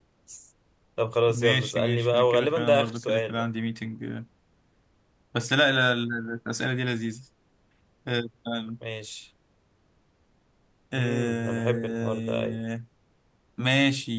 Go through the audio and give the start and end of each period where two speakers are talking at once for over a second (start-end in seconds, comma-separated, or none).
1.3-3.4, 10.9-12.6